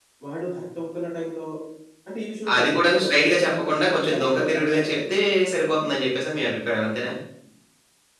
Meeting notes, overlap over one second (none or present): present